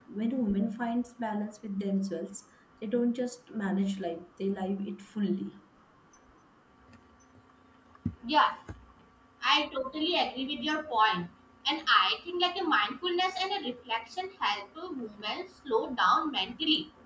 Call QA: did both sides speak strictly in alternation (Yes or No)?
Yes